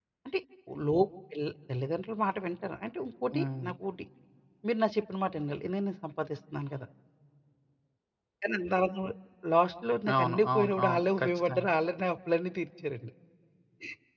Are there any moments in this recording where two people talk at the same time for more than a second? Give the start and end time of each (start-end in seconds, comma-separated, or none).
10.1-11.7